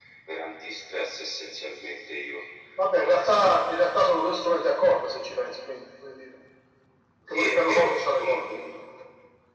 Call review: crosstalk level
present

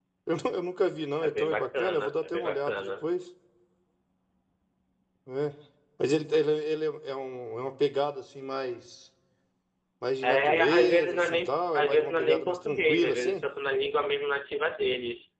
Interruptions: present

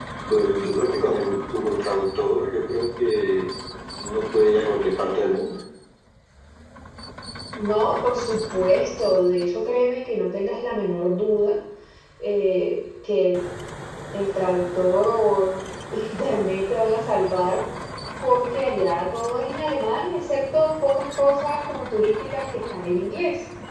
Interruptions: none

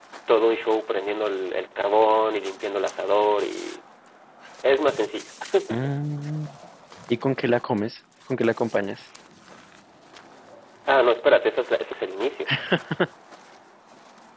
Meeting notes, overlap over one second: none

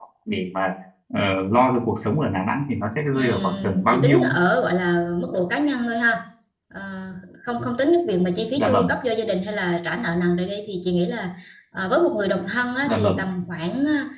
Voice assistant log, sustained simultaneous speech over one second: present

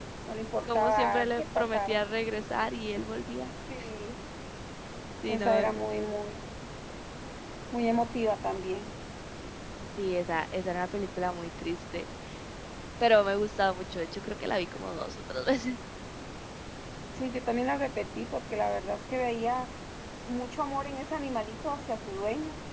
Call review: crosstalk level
present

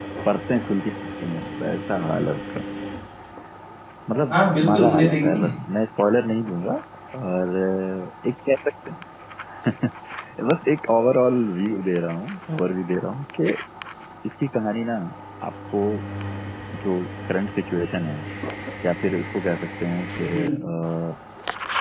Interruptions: present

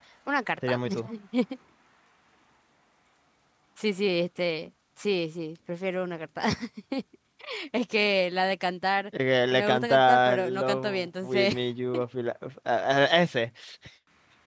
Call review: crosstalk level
present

